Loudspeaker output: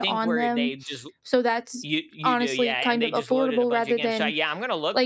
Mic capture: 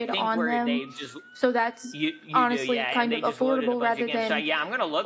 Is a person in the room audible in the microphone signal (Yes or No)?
No